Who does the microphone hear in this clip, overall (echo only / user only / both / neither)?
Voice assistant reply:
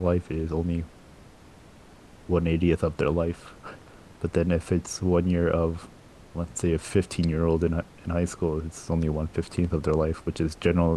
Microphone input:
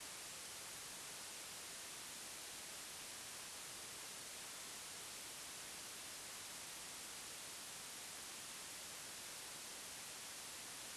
neither